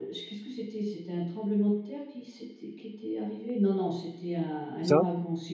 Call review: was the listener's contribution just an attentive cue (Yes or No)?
Yes